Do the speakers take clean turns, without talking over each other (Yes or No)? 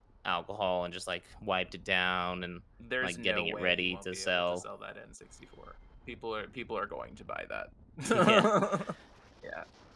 No